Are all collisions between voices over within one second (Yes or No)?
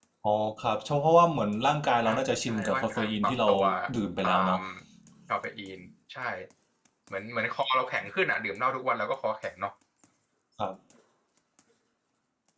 No